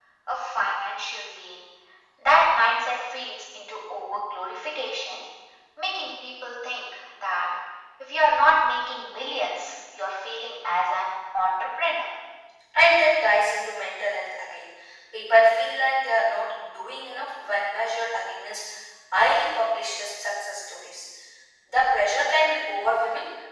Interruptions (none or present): none